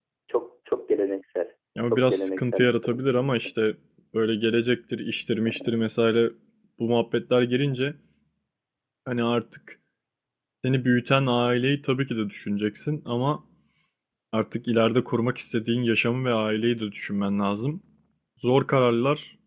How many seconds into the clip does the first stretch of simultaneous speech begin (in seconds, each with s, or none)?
1.9 s